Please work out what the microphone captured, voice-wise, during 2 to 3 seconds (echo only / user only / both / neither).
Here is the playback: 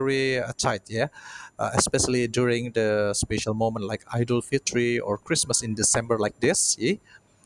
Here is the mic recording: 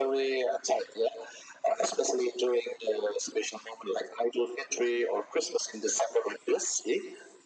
echo only